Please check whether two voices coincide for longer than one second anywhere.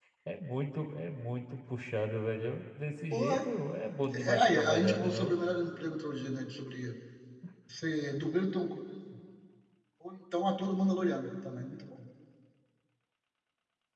Yes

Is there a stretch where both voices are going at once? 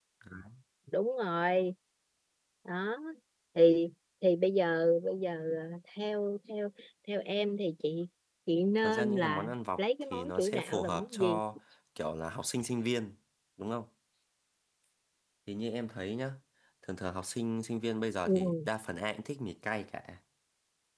Yes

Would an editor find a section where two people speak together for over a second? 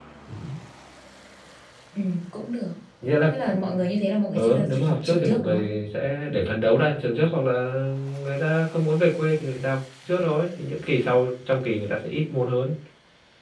Yes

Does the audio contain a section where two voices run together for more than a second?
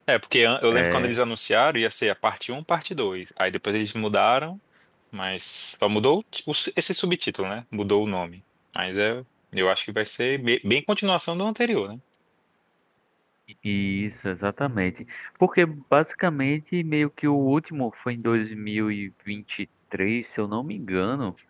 No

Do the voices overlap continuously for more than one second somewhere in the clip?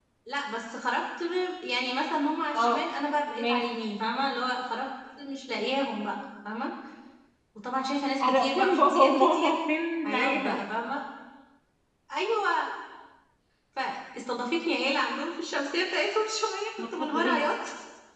Yes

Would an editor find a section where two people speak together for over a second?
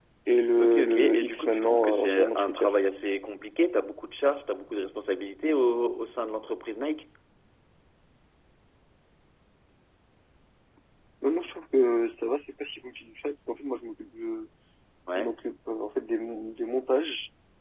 Yes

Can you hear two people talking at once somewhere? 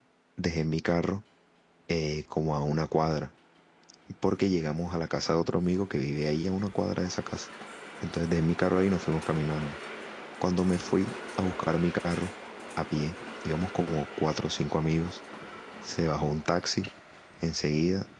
No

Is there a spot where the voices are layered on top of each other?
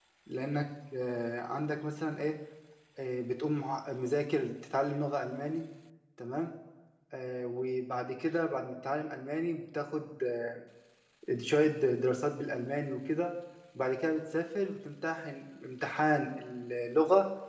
No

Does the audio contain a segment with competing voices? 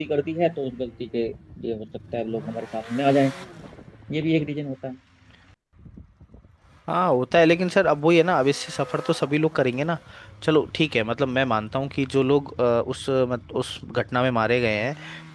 No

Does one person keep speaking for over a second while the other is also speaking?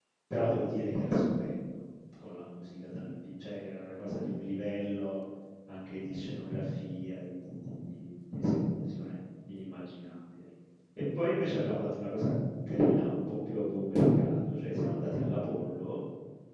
No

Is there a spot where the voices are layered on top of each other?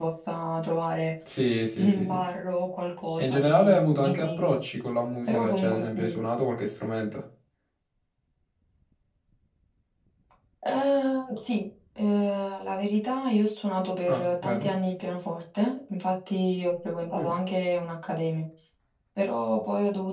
Yes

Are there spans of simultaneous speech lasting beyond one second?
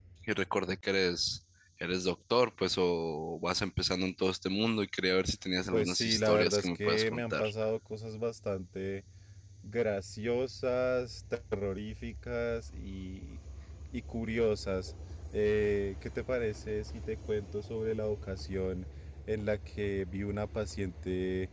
Yes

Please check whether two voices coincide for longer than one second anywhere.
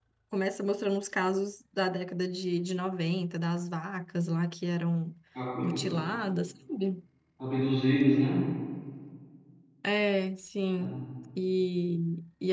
No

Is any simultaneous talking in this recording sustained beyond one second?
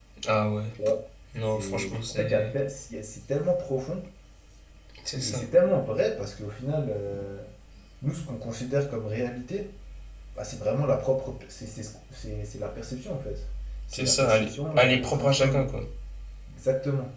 Yes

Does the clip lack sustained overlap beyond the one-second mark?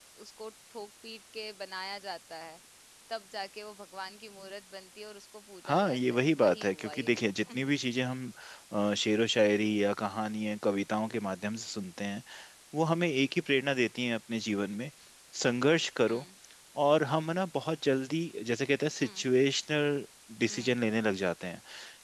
No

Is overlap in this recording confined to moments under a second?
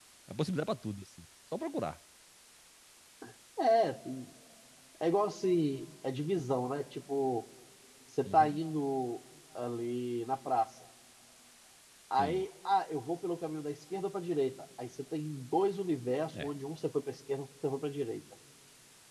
Yes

